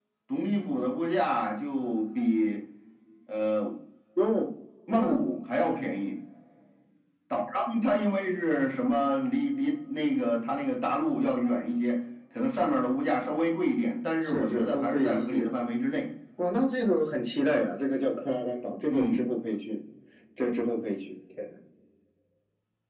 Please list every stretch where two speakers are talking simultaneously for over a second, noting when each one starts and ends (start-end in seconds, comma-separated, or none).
14.2-15.5